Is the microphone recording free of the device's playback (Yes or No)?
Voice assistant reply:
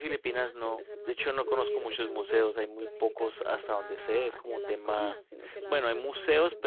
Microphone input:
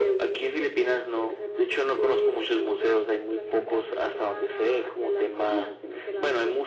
No